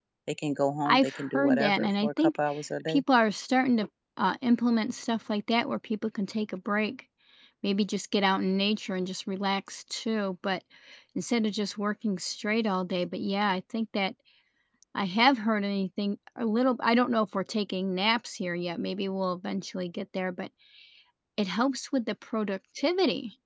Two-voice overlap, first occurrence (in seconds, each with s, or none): 0.8 s